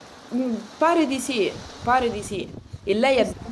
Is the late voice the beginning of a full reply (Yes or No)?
No